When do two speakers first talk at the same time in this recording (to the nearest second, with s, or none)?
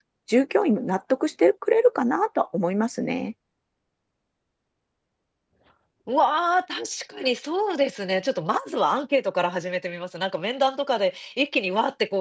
none